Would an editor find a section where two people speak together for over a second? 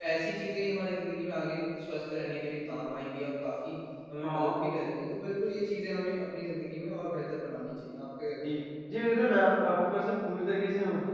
No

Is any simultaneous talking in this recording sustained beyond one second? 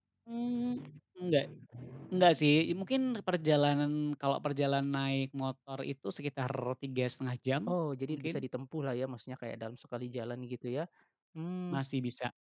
No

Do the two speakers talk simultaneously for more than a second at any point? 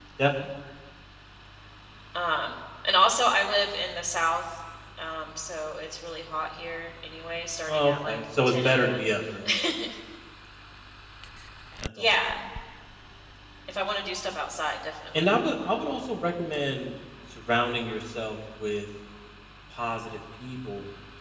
Yes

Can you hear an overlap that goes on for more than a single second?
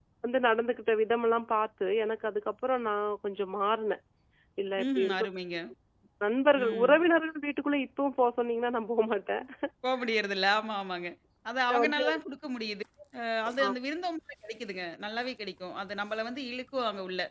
No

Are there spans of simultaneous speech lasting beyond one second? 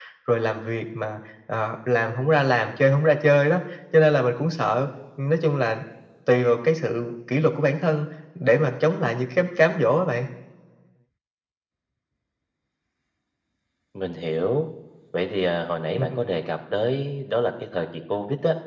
No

